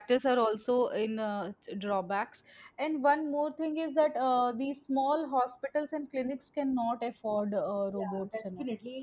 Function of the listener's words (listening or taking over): taking over